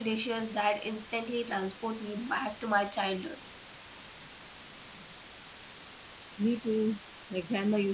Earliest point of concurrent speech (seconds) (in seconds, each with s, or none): none